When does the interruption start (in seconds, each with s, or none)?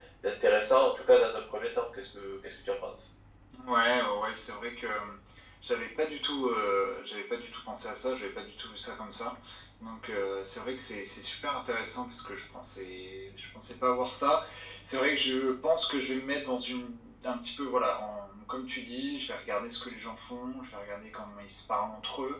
none